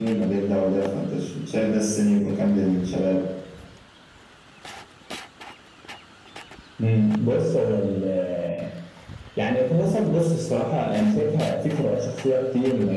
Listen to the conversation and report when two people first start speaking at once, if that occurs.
none

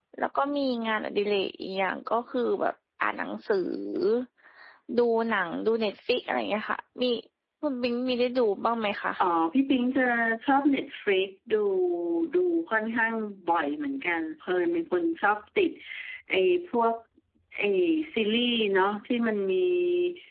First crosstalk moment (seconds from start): none

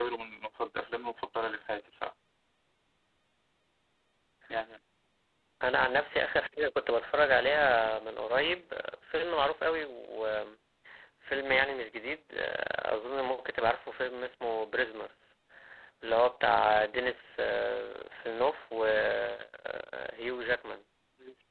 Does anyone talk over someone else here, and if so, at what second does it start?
none

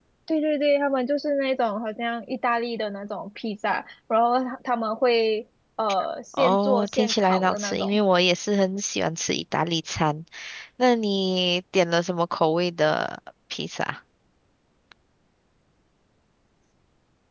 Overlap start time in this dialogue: 6.3 s

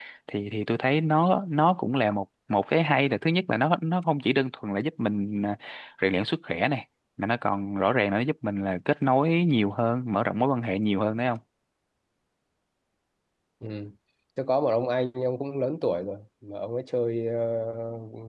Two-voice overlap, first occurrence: none

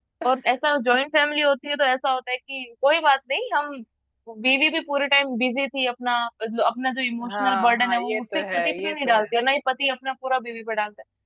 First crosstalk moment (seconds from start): 7.2 s

